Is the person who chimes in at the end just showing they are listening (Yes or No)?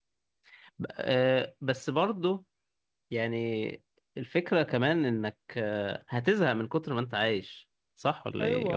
No